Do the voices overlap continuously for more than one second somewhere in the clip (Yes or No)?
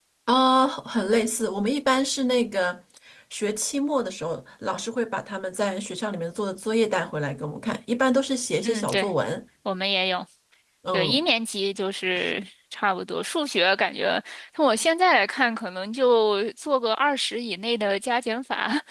No